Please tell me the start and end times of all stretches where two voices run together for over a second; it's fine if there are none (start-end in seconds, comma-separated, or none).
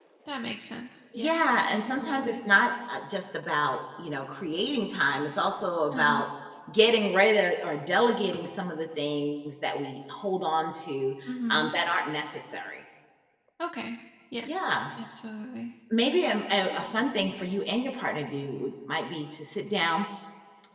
1.1-2.4